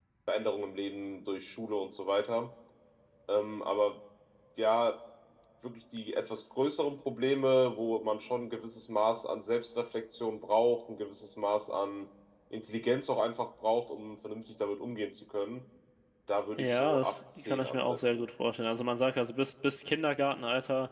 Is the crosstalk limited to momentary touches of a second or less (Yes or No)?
No